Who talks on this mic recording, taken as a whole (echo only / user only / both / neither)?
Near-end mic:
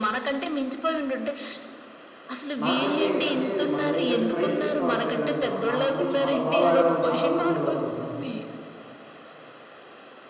both